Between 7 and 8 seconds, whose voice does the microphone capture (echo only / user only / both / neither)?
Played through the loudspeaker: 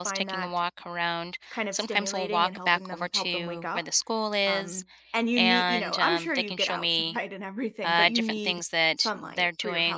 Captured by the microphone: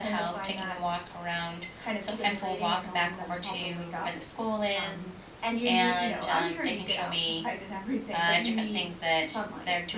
echo only